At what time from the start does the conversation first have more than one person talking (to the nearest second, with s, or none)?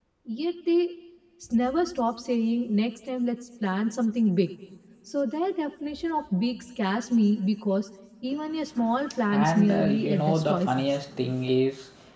9 s